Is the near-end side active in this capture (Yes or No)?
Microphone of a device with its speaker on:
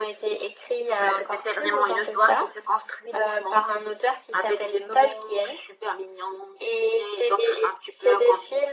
No